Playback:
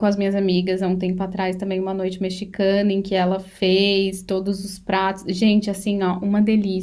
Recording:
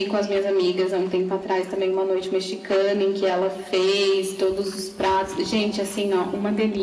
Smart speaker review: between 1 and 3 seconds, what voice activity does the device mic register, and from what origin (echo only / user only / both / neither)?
echo only